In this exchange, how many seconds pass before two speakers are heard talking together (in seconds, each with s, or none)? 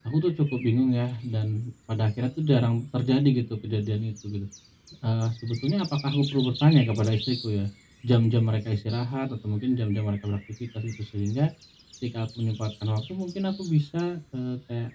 none